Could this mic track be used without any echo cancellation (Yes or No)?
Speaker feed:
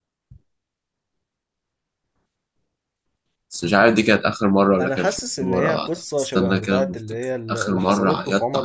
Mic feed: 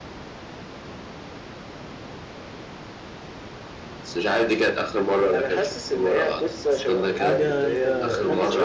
No